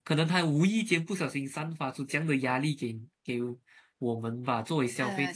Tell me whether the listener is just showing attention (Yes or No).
Yes